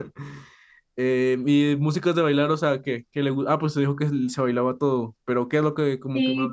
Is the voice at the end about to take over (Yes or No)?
Yes